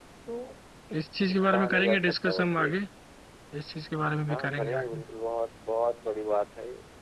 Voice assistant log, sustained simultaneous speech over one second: present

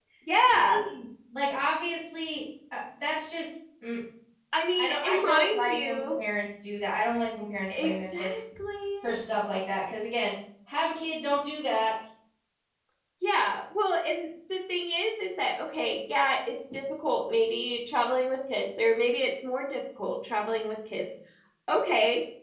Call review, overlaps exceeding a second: present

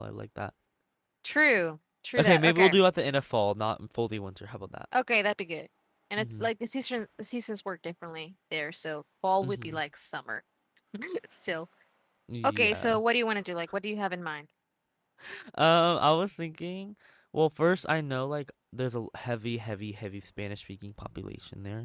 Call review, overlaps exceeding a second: none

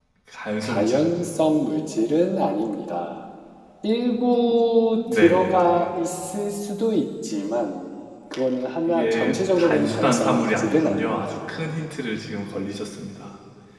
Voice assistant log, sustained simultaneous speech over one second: present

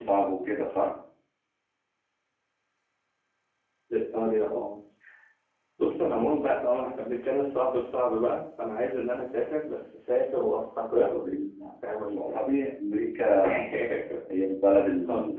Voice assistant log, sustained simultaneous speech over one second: none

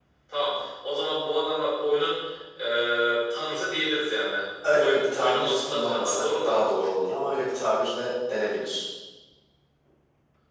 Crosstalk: present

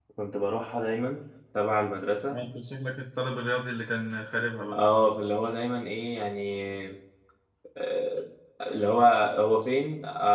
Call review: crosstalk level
none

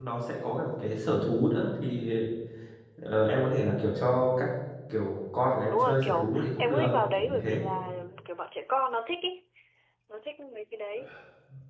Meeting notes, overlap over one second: present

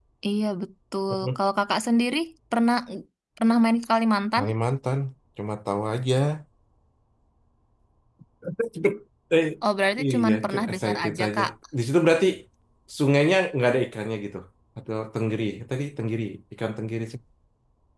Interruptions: present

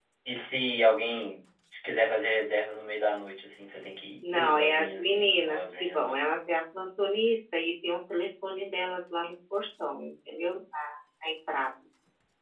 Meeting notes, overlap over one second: present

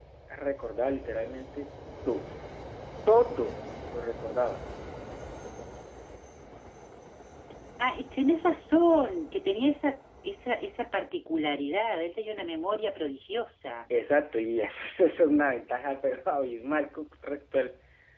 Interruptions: none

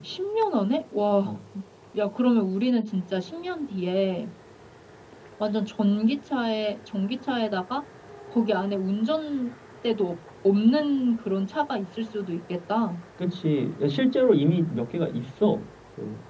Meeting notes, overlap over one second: none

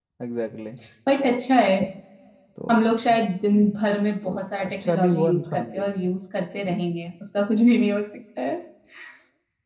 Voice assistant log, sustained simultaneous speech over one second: present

